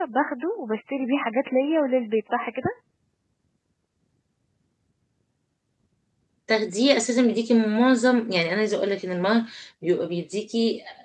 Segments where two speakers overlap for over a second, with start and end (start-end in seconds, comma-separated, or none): none